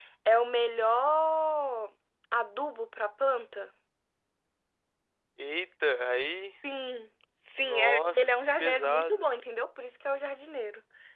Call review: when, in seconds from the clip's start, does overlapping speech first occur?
8 s

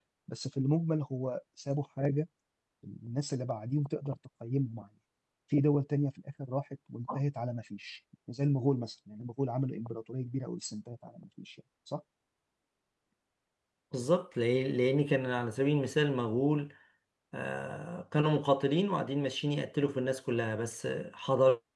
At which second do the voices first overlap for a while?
none

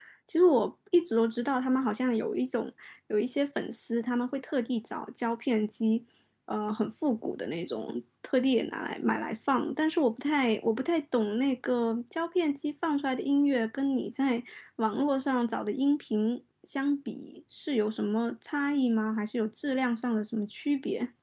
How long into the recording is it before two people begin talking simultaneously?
none

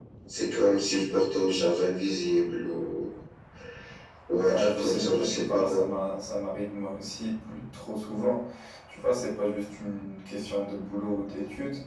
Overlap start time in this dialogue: 4 s

